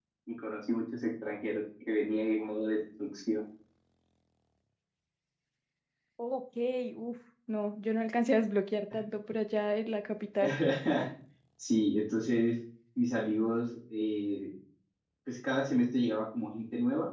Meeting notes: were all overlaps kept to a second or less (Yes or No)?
Yes